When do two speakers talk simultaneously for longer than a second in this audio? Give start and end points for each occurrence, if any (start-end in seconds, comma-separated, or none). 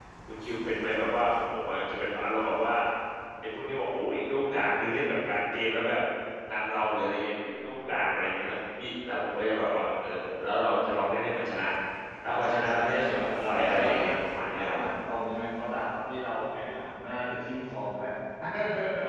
12.2-14.1